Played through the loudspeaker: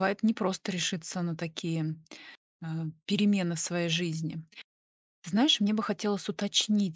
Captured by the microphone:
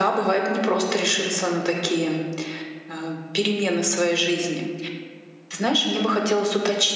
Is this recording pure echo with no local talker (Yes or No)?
Yes